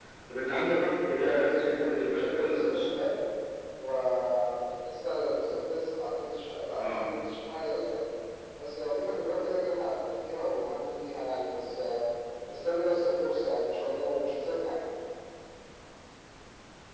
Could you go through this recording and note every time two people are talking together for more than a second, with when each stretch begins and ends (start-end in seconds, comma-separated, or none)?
1.2-2.9